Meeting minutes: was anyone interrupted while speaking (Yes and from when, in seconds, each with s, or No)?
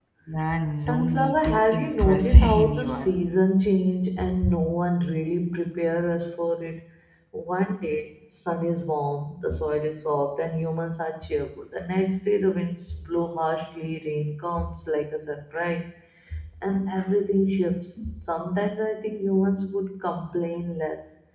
Yes, from 0.8 s